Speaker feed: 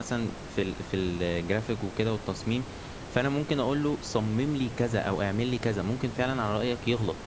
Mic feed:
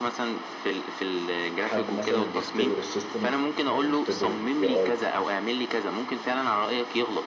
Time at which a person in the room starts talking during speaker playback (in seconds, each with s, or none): 1.6 s